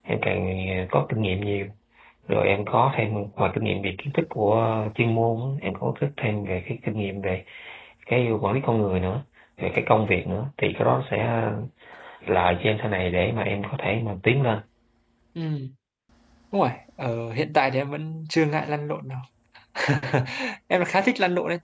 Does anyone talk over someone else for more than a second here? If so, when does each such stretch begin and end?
none

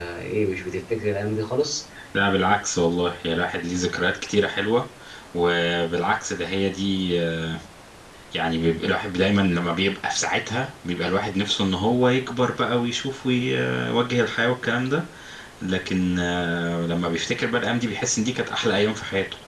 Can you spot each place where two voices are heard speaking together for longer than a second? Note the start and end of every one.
none

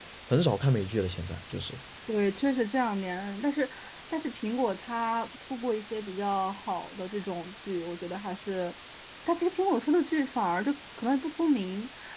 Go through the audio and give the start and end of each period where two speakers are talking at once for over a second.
none

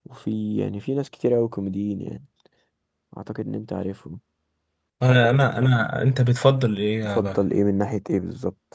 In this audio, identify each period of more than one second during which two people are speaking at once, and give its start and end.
none

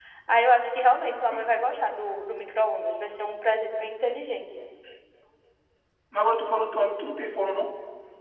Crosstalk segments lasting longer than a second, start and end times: none

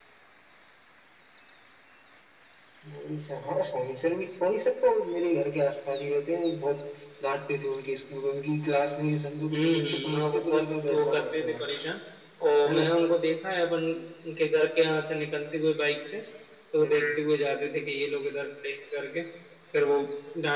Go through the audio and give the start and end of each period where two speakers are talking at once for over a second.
9.5-11.6

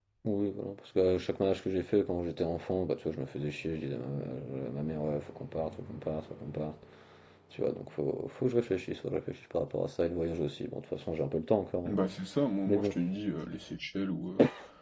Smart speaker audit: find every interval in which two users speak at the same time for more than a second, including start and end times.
none

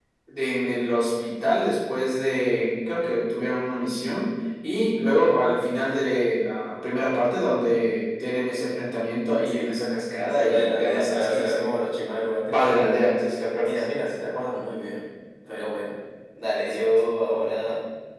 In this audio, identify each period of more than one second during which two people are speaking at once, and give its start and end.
10.2-11.8

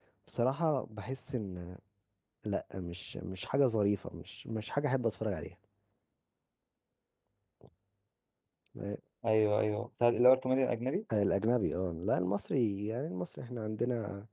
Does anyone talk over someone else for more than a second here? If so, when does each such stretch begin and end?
none

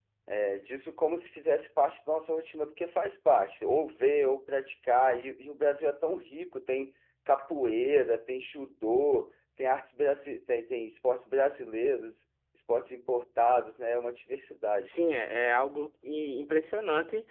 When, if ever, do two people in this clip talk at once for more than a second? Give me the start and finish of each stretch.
none

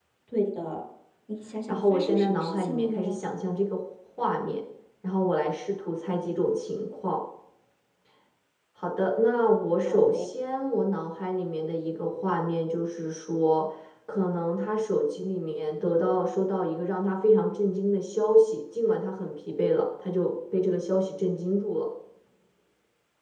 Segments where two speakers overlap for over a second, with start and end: 1.7-3.2

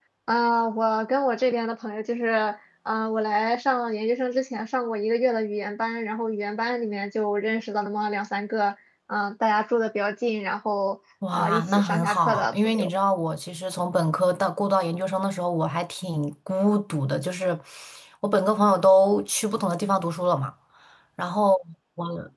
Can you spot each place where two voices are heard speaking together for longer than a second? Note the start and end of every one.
11.3-12.9

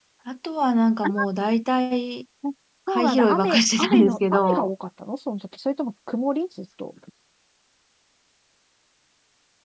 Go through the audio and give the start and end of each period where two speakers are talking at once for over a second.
2.9-4.7

